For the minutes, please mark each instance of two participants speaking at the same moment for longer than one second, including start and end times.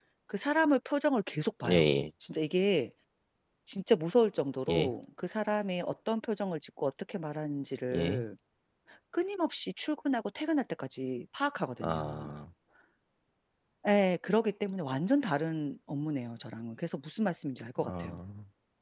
none

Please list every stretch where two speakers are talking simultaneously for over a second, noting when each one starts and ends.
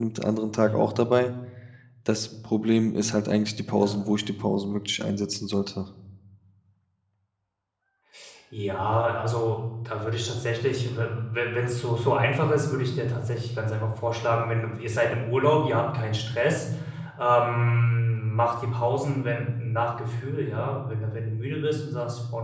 none

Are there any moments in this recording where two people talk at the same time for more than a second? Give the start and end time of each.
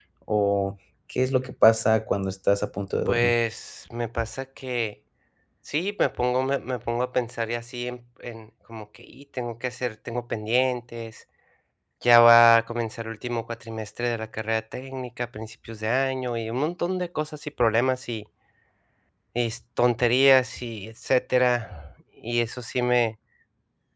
none

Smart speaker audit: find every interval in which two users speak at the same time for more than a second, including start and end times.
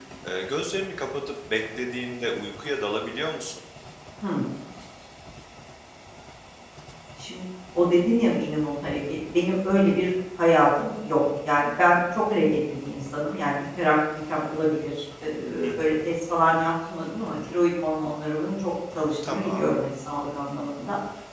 none

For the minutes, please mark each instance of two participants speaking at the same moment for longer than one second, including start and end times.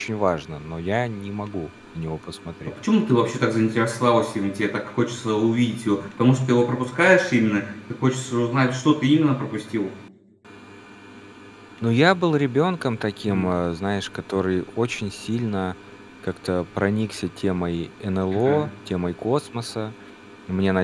none

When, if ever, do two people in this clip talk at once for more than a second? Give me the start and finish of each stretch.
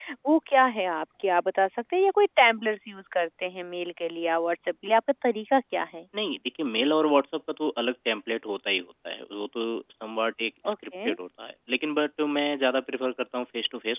none

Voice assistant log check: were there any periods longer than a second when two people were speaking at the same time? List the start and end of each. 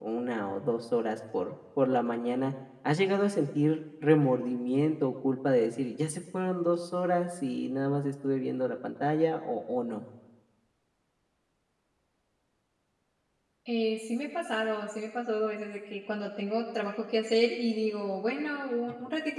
none

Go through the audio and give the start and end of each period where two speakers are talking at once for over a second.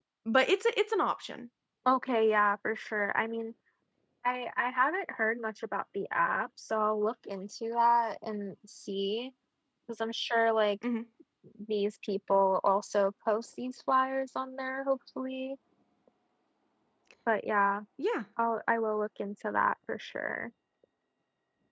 none

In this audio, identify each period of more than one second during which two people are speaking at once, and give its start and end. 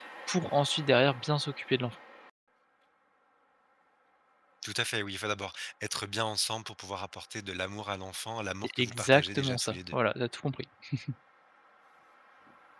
8.6-9.9

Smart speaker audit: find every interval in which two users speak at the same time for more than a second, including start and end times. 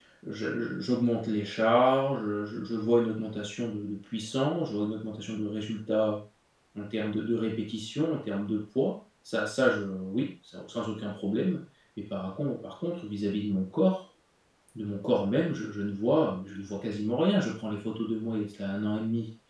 none

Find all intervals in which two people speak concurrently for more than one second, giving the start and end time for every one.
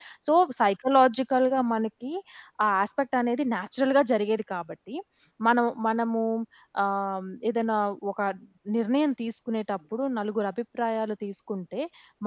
none

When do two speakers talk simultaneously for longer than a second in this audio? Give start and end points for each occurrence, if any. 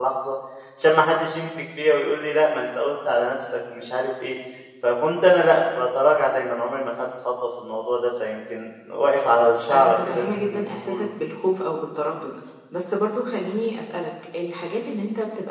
9.7-11.1

